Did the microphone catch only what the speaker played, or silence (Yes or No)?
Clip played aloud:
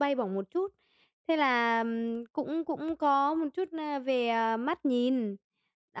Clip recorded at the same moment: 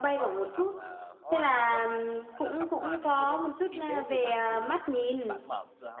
No